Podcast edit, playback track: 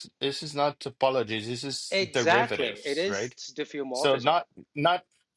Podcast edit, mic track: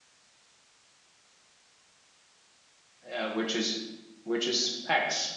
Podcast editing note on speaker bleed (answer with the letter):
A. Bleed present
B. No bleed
B